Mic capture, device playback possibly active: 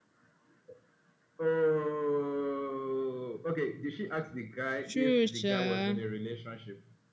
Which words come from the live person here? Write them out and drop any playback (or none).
True, sure.